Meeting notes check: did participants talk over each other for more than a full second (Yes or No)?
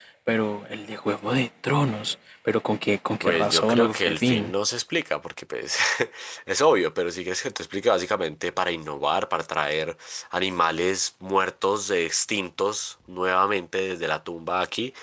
Yes